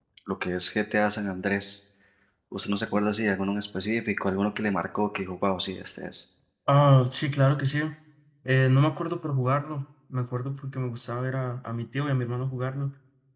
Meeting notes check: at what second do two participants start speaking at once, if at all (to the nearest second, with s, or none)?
none